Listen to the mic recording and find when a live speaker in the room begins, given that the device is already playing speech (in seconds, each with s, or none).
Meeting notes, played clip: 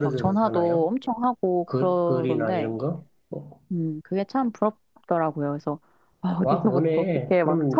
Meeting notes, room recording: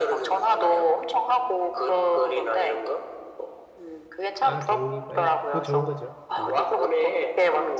4.3 s